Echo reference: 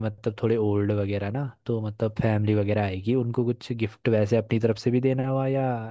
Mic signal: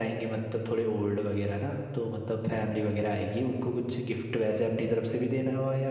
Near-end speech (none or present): none